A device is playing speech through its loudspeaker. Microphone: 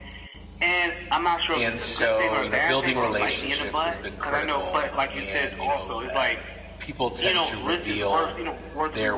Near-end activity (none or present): present